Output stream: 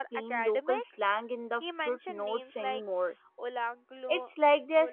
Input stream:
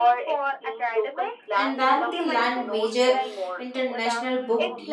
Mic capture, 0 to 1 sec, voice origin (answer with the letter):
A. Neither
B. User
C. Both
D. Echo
D